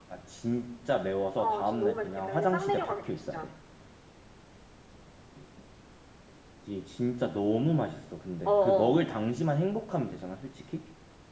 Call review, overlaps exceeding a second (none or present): present